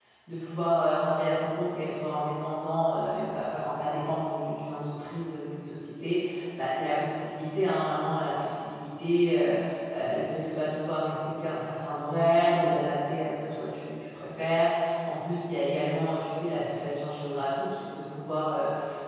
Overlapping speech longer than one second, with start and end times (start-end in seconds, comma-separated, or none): none